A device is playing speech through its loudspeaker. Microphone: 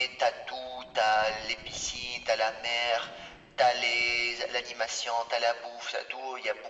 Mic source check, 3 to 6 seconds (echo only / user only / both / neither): echo only